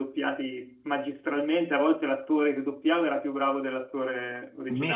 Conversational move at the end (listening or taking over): taking over